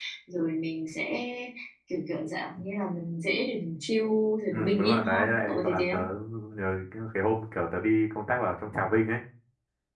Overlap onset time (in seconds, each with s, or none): 4.5 s